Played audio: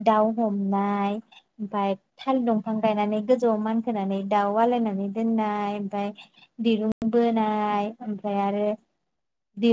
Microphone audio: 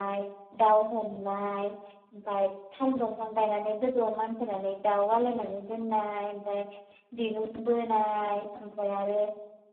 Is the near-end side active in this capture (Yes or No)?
No